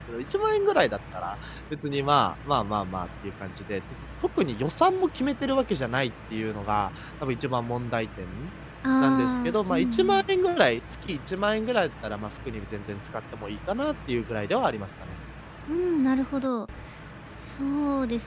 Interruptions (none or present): present